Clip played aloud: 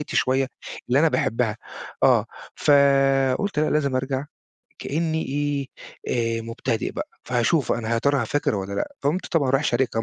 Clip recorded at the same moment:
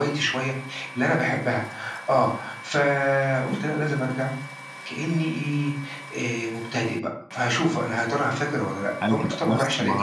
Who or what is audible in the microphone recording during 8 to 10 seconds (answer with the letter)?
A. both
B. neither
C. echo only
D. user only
A